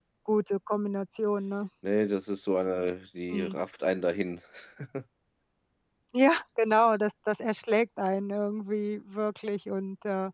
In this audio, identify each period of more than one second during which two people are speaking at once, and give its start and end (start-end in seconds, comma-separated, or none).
none